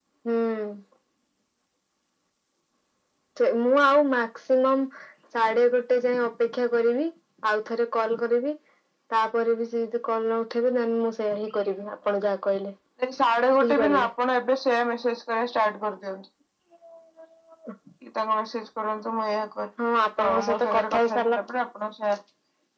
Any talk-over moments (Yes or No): Yes